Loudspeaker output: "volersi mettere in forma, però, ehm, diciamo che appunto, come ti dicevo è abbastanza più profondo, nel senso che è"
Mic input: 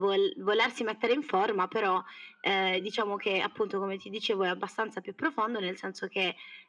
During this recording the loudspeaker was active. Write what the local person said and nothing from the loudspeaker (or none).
none